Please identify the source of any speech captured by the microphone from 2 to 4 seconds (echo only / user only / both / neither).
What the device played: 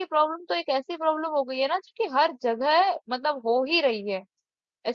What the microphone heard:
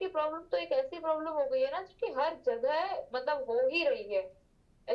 echo only